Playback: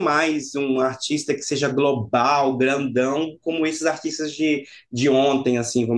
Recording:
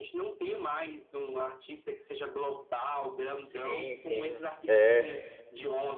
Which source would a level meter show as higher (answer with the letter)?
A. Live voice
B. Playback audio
A